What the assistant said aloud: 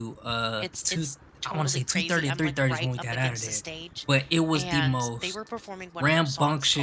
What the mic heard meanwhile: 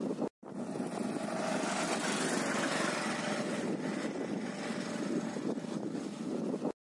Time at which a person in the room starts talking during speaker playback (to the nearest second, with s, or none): none